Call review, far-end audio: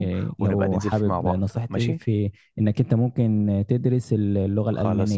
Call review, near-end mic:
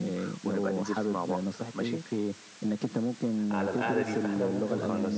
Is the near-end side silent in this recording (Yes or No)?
No